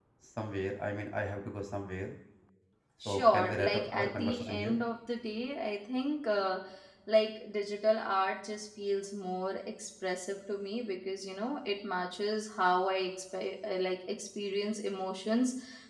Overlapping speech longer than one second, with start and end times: 3.0-4.8

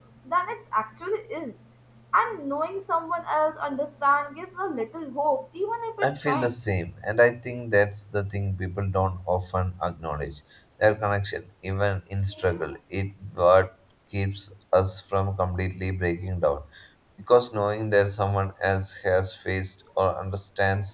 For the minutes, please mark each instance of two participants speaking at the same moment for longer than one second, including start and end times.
none

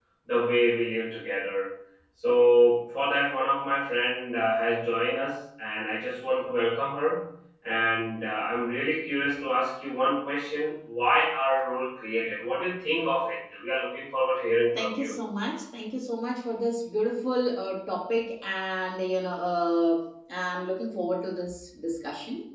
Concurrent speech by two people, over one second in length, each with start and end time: none

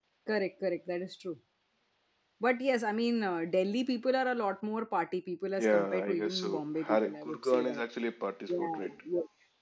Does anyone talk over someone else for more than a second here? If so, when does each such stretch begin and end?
5.6-7.8

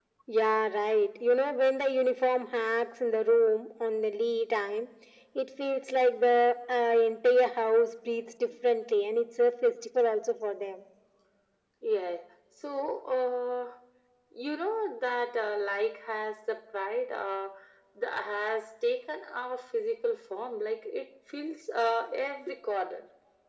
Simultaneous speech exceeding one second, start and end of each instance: none

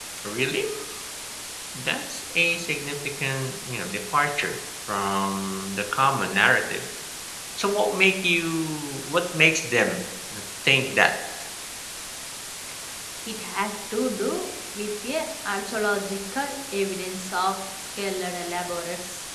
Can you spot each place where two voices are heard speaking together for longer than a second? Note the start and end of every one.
none

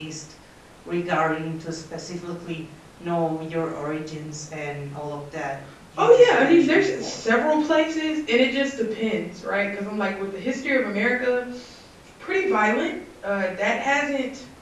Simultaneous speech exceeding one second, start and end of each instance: 6.0-7.2

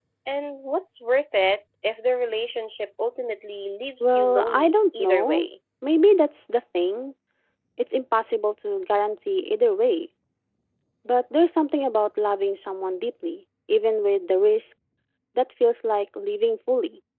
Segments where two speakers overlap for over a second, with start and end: 4.0-5.5

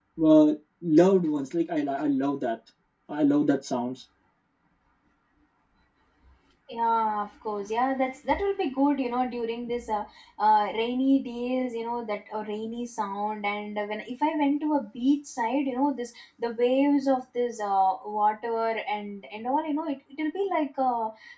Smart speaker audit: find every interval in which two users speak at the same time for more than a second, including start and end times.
none

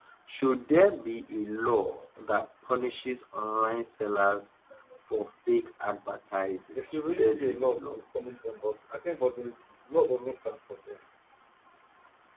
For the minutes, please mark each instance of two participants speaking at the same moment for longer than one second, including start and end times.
6.8-8.0

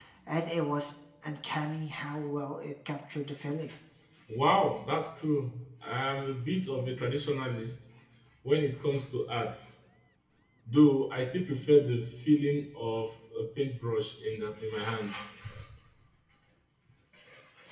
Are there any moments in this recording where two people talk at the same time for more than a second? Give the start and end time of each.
none

